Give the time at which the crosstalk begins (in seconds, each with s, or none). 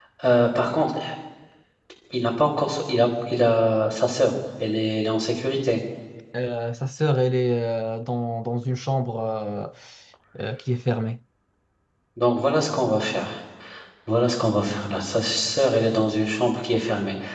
none